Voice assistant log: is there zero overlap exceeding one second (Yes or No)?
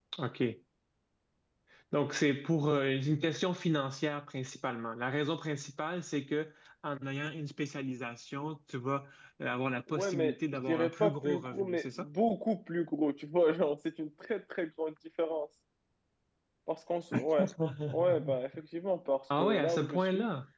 No